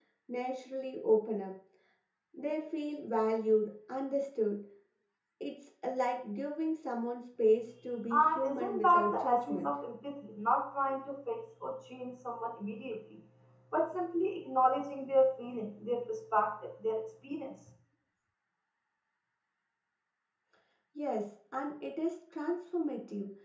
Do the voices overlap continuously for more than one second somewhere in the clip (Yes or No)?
Yes